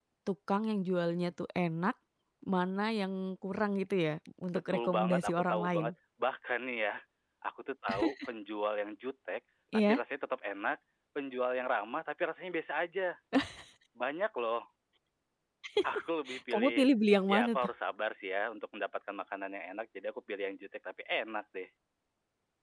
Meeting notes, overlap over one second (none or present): present